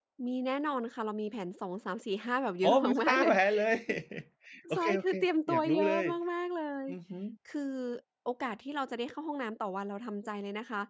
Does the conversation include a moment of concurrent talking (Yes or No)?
Yes